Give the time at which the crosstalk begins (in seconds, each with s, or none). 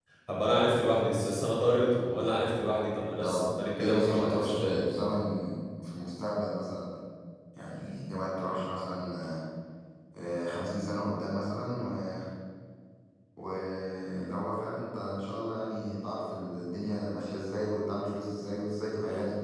3.2 s